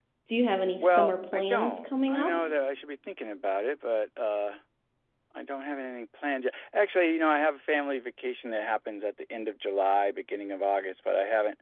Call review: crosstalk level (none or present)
present